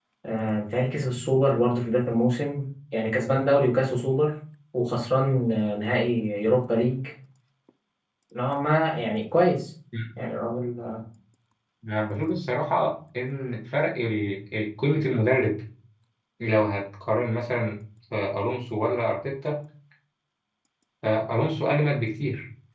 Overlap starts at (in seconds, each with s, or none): none